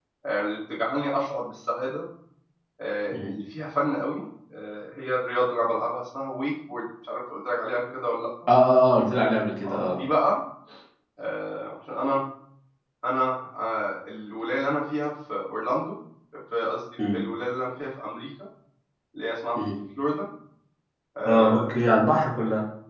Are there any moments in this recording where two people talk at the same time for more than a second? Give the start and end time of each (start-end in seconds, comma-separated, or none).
none